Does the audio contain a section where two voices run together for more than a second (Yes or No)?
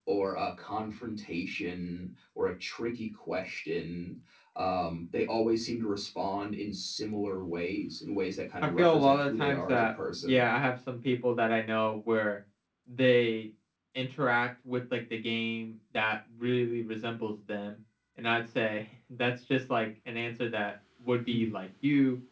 Yes